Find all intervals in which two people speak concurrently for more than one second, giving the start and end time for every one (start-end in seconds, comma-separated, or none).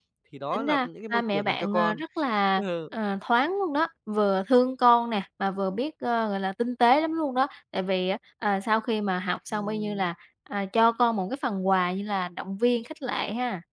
0.5-2.0